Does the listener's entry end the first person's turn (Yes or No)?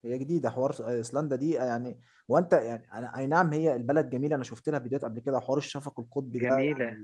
No